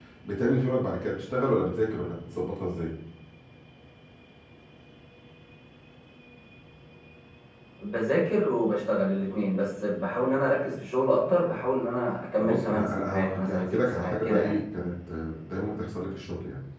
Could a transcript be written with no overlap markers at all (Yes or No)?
No